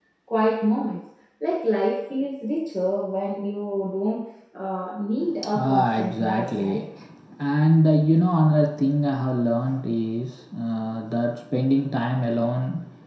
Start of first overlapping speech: 5 s

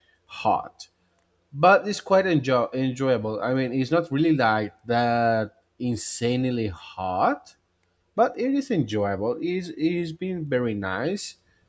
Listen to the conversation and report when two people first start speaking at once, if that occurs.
none

